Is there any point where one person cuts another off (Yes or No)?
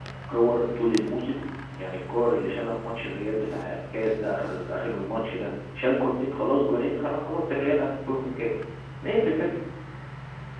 No